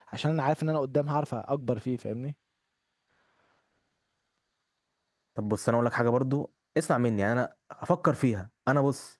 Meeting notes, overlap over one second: none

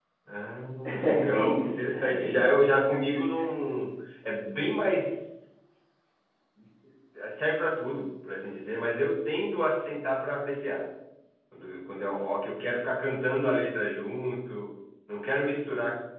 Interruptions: present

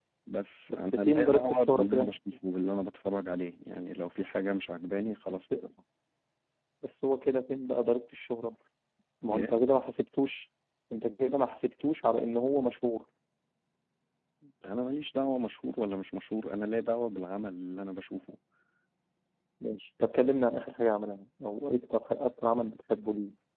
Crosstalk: present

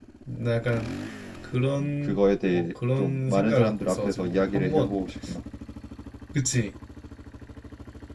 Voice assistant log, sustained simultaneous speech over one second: present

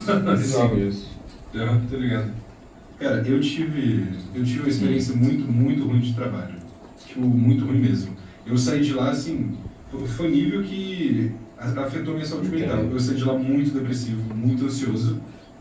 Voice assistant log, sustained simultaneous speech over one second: none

